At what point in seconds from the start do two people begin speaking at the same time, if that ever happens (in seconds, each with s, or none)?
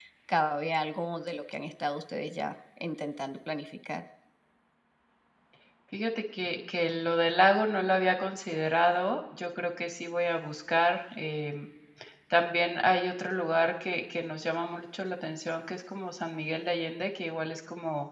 none